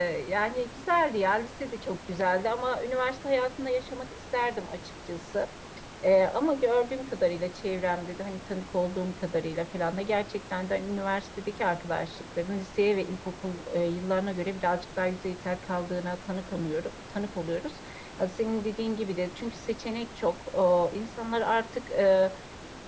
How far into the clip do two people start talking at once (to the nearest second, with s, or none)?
none